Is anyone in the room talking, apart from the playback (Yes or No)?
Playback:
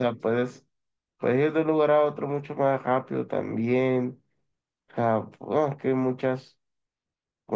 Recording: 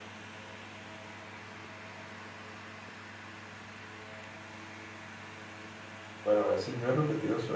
Yes